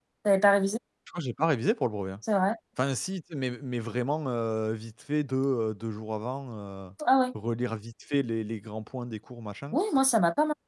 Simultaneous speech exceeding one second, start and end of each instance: none

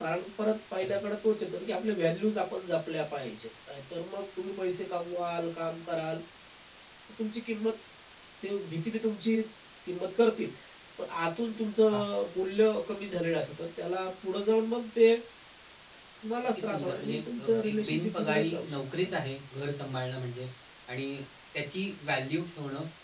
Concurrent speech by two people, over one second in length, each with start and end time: 16.6-19.2

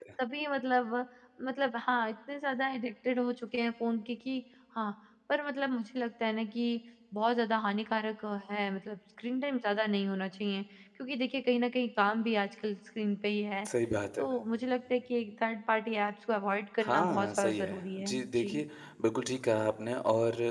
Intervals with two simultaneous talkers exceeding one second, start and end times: 16.8-18.6

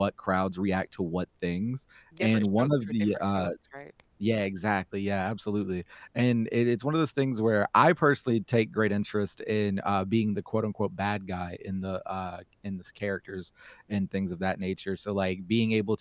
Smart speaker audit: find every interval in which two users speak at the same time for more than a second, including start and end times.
2.2-3.5

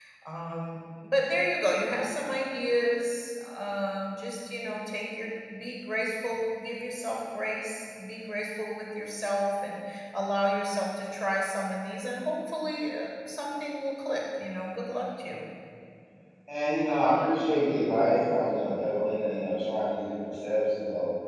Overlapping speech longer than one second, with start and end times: none

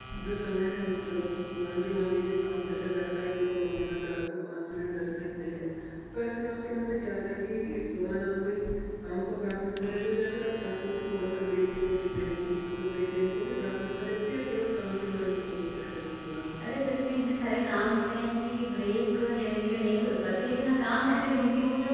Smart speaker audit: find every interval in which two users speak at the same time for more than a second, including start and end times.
none

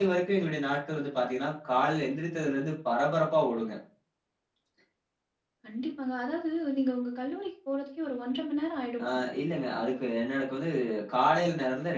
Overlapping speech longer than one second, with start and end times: none

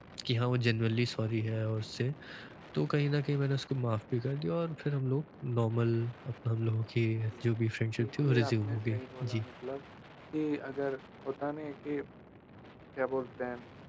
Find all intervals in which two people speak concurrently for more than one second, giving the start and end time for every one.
8.0-9.4

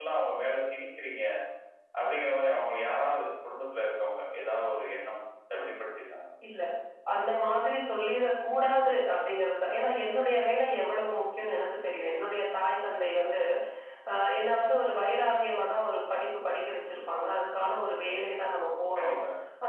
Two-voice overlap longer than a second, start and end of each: none

